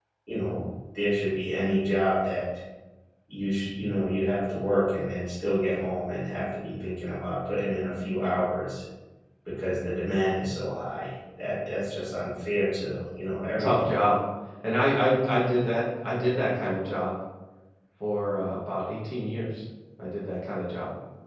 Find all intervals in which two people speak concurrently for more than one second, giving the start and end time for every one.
none

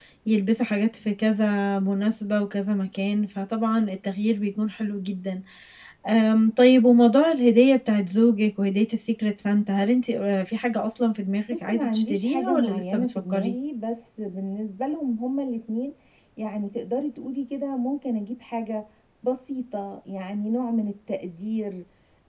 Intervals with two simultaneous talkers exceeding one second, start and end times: 11.5-13.6

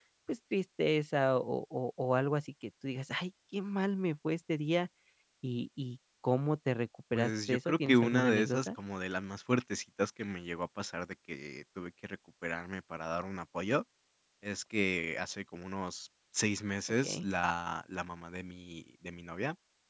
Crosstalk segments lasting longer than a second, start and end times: 7.1-8.7

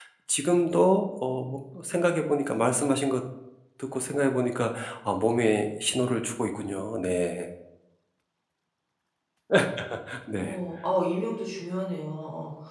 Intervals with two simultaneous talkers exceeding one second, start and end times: none

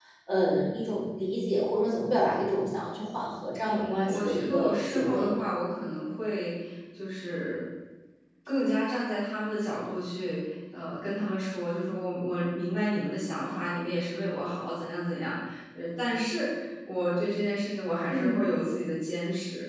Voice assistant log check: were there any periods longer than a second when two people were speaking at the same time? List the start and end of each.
3.6-5.4

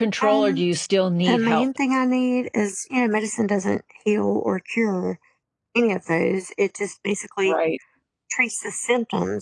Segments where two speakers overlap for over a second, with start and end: none

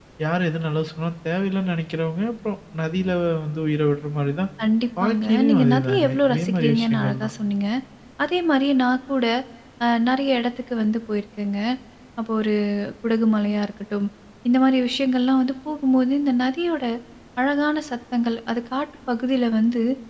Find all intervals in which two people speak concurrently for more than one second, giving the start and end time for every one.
5.0-7.3

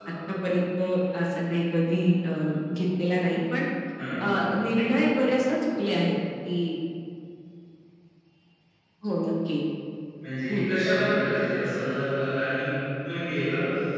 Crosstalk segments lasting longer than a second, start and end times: none

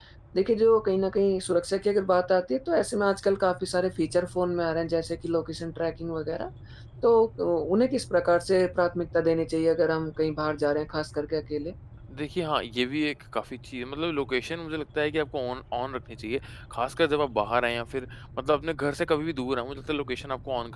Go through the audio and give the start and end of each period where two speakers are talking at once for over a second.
none

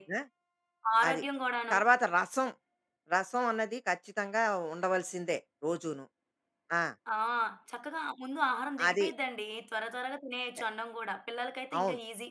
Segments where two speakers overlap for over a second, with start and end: none

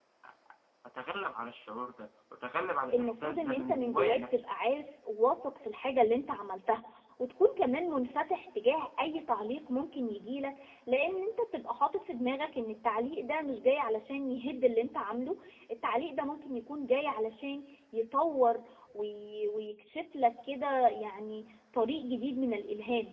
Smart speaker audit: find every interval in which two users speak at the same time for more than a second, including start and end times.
2.9-4.4

